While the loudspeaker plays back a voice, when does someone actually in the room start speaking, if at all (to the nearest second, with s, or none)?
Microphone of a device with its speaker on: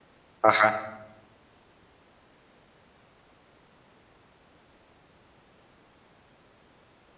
0 s